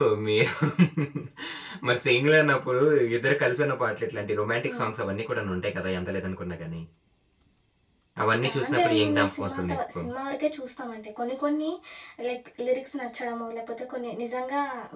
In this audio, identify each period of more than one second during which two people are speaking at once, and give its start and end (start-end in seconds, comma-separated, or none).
8.4-10.0